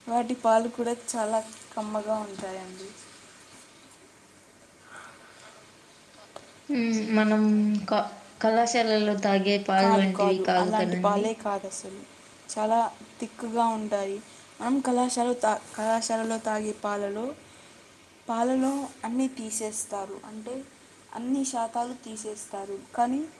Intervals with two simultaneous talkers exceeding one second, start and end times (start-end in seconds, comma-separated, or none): 9.8-11.3